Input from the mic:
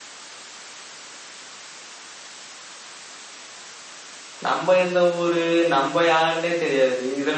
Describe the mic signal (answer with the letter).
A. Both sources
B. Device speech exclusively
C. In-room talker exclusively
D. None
C